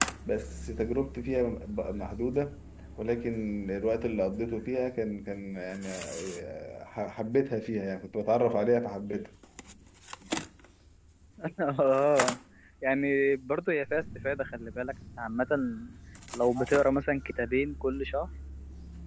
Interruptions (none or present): none